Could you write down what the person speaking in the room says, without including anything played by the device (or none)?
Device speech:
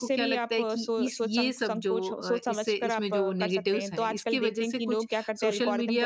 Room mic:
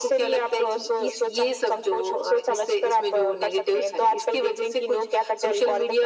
none